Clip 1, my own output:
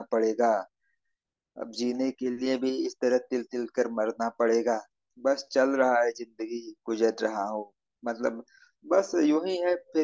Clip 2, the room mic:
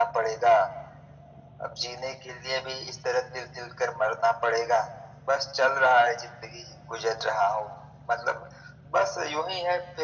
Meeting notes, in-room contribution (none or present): none